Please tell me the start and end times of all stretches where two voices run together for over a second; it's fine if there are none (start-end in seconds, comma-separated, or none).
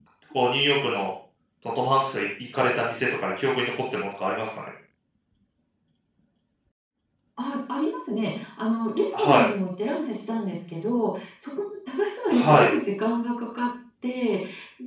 none